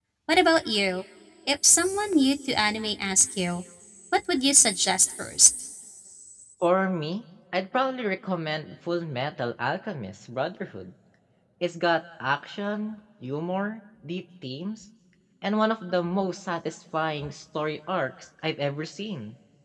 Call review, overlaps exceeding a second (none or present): none